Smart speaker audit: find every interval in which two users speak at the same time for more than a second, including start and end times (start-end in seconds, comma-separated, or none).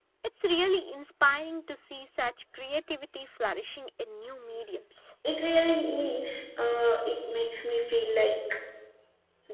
none